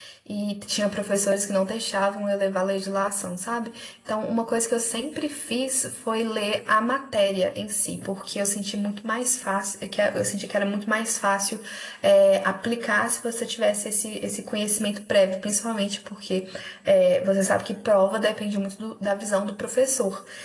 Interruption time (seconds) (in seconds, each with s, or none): none